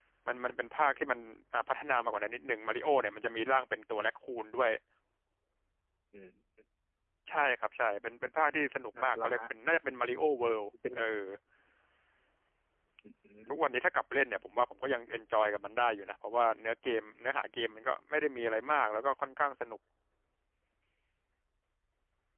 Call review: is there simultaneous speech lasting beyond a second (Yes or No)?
No